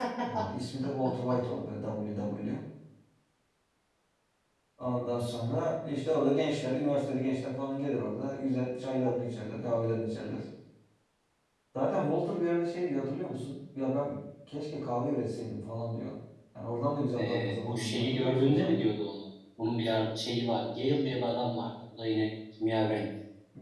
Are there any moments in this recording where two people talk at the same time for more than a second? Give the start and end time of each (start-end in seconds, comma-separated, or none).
17.2-18.9